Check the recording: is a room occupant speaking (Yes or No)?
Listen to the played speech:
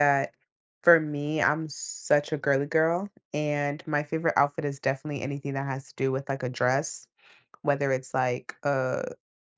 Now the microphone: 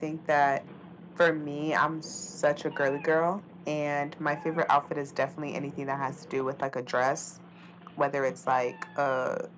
No